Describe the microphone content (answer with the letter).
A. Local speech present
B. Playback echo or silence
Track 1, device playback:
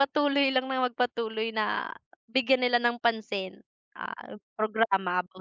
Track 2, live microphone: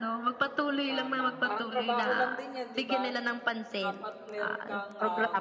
A